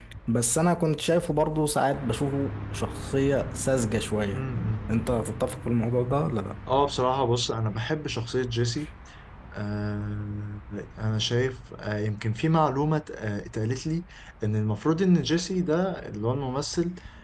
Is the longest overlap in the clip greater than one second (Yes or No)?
No